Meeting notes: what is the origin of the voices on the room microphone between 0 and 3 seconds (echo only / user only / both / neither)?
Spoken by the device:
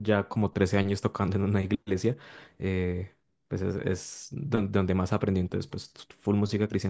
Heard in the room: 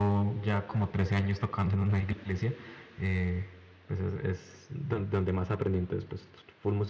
echo only